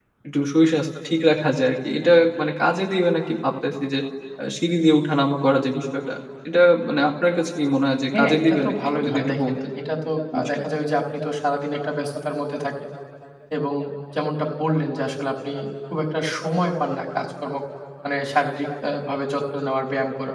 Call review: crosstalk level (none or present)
present